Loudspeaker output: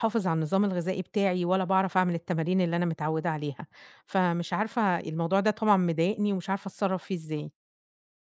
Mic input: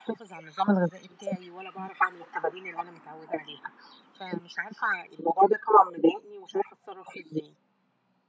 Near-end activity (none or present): none